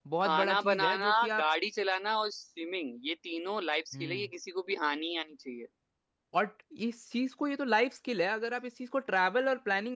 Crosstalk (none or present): present